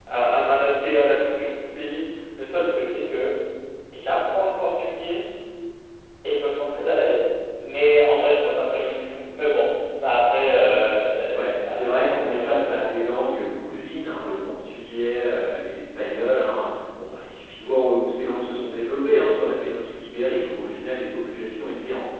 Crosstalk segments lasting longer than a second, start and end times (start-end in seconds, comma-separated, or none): 11.3-13.1